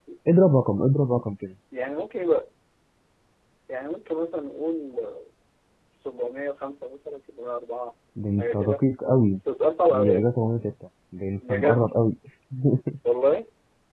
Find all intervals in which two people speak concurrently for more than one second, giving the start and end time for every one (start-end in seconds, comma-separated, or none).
none